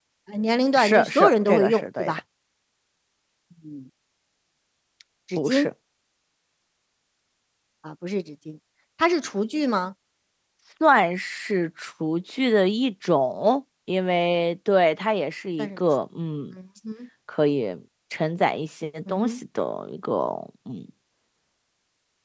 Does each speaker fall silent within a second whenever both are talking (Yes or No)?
No